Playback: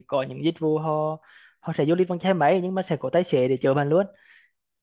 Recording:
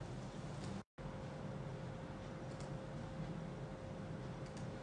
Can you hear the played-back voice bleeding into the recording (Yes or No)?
No